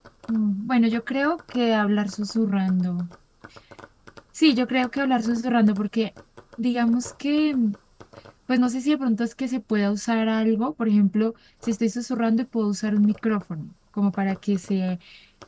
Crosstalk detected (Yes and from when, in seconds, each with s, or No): No